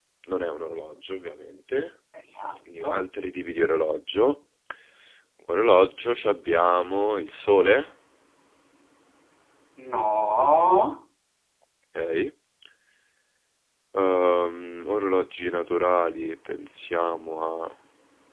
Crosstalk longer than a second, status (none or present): none